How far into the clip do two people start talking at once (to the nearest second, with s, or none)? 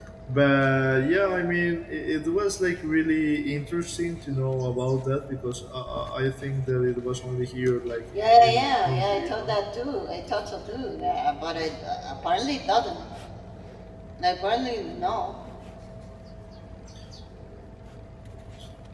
8 s